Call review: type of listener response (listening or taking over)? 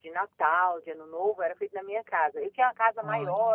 listening